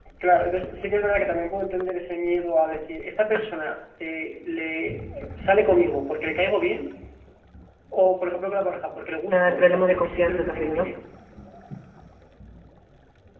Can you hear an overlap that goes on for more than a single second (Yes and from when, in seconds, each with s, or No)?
Yes, from 9.3 s